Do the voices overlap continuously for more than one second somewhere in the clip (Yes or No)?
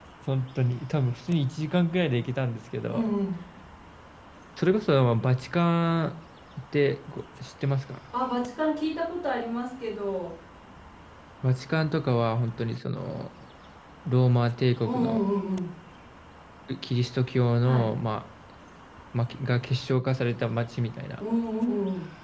No